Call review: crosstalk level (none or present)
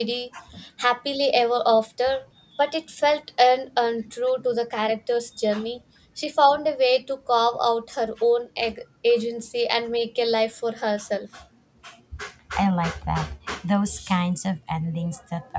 none